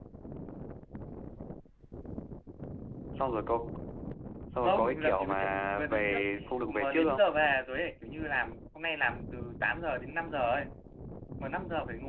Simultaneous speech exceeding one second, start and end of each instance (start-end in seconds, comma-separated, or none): 4.6-6.2